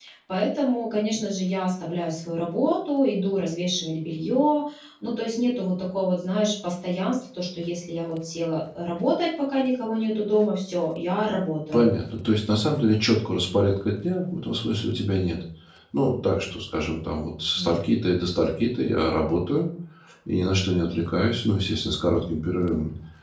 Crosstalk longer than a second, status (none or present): none